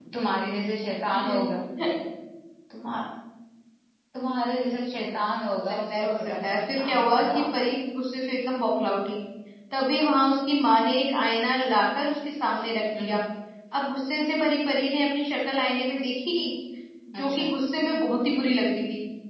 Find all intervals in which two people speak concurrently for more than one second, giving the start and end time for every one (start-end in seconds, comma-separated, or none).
5.5-7.4